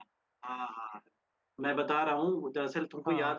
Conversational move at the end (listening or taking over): listening